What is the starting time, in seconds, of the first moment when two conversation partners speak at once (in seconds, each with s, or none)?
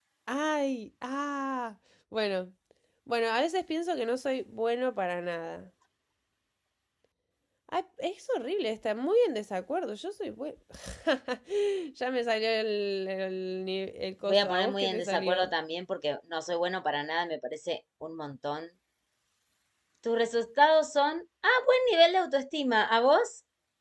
14.3 s